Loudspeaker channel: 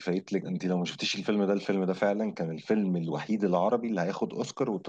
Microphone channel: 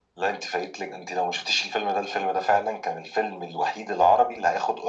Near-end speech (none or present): none